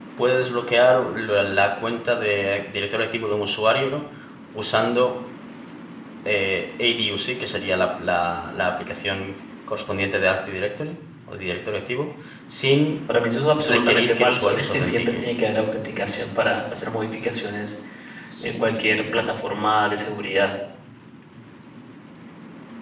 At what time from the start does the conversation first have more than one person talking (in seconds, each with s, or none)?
13.6 s